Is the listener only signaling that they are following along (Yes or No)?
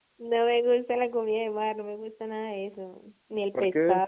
Yes